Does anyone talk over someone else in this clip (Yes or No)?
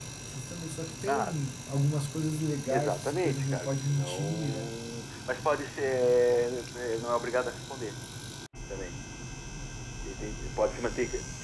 Yes